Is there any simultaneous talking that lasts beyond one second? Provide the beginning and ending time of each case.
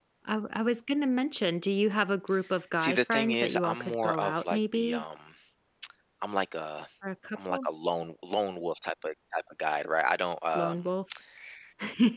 2.8-5.0

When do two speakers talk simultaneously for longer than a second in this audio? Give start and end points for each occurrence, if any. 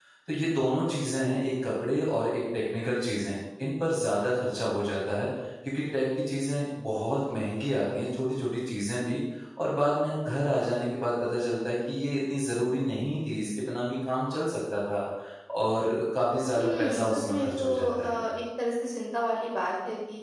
16.5-18.2

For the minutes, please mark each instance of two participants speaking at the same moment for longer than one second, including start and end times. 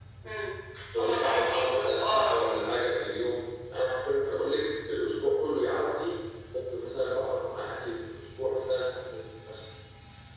1.0-2.4

